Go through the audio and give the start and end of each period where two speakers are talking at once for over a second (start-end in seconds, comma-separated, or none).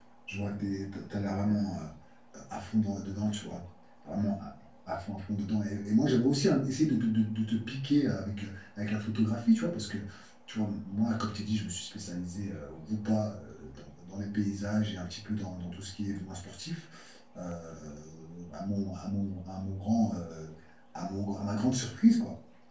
none